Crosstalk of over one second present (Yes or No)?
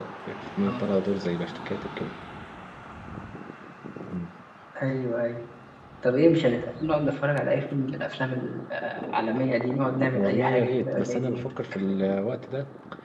Yes